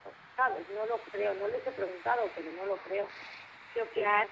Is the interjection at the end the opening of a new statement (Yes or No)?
Yes